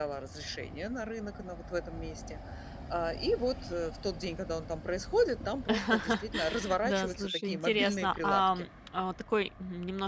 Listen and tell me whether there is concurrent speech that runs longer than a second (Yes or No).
Yes